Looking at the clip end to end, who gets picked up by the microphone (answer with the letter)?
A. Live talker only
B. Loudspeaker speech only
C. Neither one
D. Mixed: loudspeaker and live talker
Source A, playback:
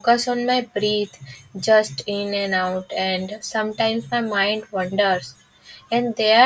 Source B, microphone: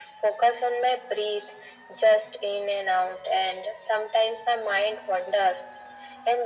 B